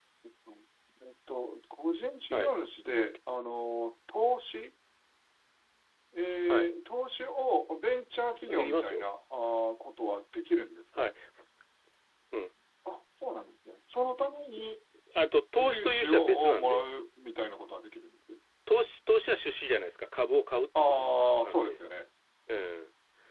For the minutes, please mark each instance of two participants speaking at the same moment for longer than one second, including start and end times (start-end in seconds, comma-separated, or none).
15.6-16.8